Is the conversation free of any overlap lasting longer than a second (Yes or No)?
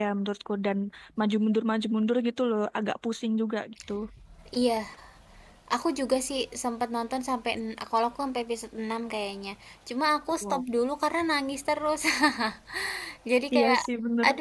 Yes